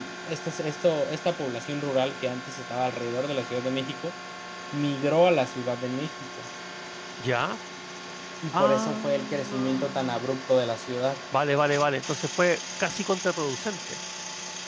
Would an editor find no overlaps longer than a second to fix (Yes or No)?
No